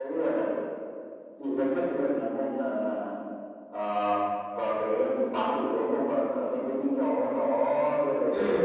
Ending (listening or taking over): listening